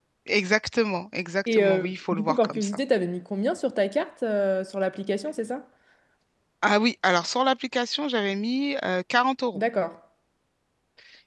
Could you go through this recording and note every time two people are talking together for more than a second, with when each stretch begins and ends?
1.5-2.8

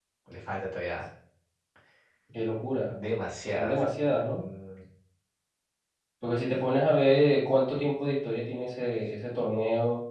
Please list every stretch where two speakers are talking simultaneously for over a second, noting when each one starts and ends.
none

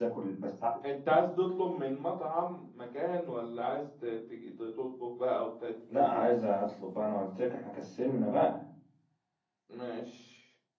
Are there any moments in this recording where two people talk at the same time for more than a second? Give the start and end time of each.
none

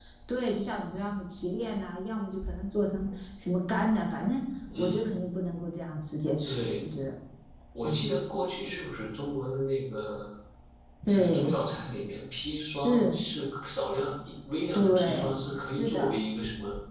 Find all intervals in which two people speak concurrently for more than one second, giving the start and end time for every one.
14.7-16.1

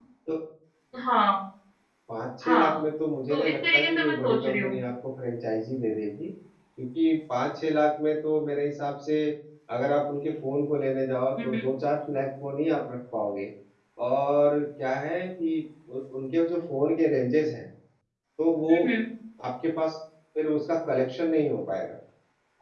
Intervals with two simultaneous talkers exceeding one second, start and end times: 3.3-4.8

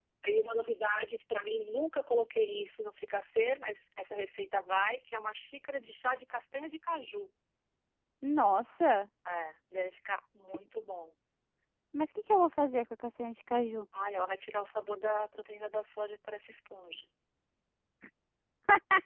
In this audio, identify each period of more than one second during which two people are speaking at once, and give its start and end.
none

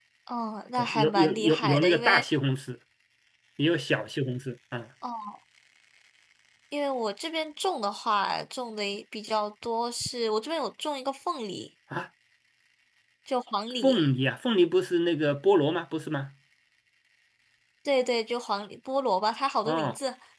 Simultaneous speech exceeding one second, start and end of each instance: 0.8-2.2

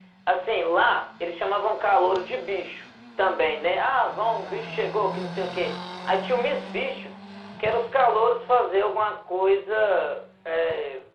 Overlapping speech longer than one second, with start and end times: none

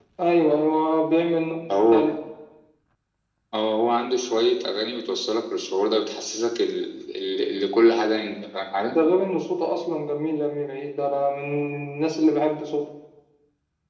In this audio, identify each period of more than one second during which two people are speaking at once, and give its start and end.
none

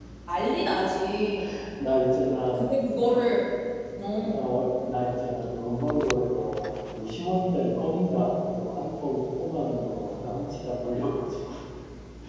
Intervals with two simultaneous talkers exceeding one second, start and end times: none

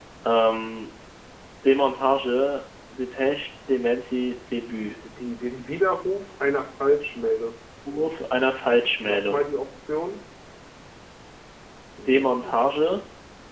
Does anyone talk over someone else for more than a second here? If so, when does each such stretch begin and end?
none

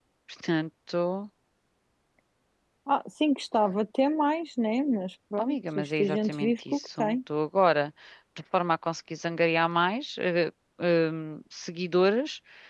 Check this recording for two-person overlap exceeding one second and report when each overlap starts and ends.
5.4-7.2

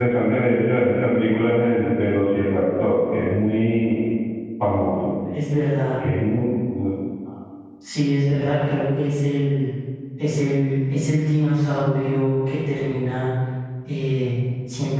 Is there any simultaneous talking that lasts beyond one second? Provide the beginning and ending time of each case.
none

